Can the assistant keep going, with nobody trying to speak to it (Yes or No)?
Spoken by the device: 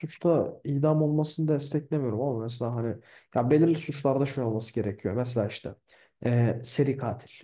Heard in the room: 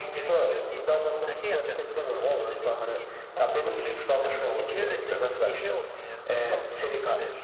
No